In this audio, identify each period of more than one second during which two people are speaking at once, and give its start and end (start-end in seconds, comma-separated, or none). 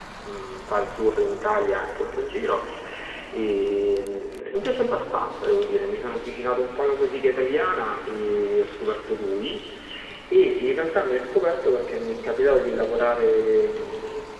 none